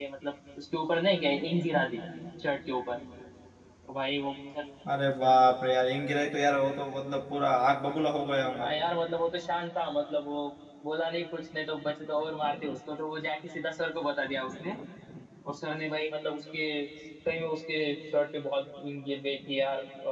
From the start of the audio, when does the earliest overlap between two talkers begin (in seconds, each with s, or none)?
none